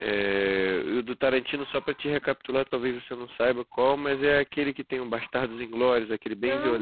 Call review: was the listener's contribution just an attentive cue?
No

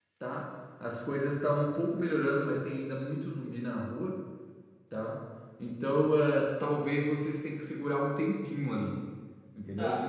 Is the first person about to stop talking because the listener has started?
Yes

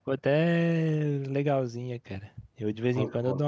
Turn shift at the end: No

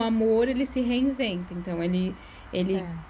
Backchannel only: Yes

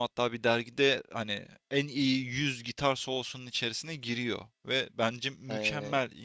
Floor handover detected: No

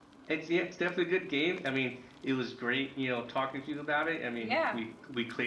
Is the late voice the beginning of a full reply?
No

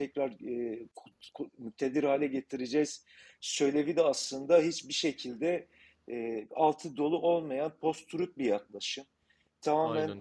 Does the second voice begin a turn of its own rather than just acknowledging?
No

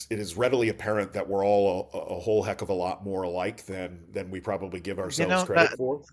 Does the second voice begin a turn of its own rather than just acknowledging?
Yes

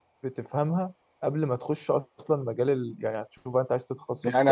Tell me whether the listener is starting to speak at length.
Yes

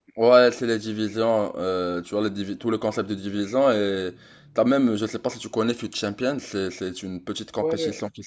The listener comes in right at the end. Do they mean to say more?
Yes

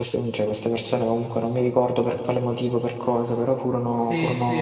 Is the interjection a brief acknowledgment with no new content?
No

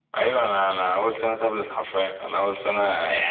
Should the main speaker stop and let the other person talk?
No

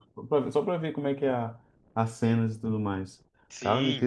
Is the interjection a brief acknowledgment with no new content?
No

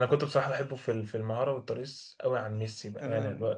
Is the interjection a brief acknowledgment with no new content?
Yes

